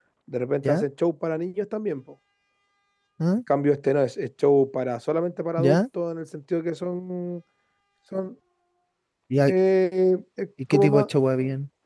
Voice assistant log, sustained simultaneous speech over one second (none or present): none